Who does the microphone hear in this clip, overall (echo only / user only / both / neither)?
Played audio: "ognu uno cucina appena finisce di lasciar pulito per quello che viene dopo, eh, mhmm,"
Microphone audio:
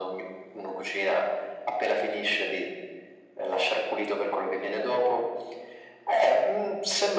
echo only